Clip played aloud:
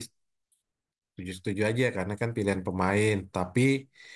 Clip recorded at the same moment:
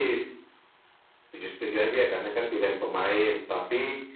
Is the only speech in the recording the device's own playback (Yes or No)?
Yes